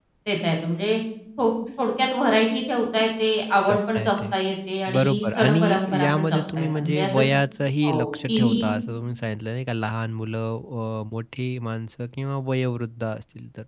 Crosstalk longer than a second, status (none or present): present